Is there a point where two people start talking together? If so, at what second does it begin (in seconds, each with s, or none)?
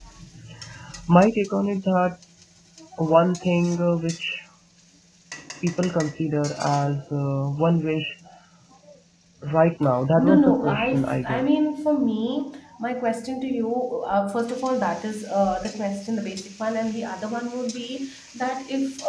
10.2 s